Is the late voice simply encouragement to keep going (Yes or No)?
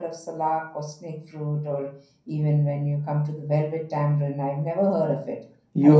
No